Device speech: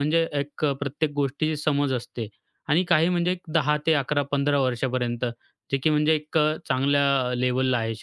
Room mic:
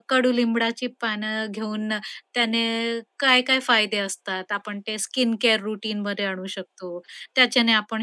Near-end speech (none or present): present